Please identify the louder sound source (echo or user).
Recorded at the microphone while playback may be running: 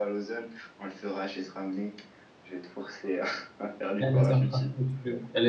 user